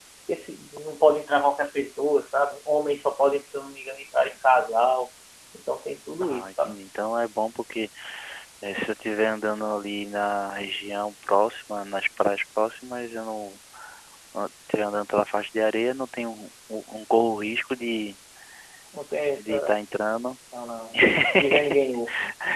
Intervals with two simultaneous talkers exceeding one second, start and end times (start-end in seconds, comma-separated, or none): none